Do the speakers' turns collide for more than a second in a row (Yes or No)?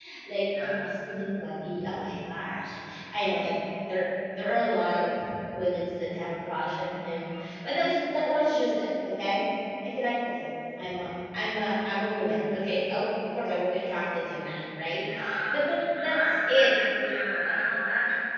Yes